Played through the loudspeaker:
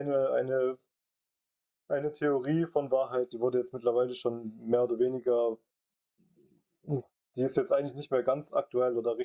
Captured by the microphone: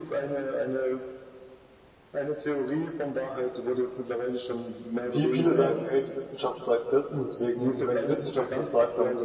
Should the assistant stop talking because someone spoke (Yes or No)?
Yes